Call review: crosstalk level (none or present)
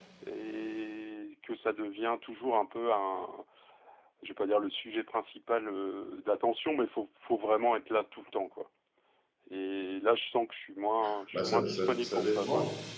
present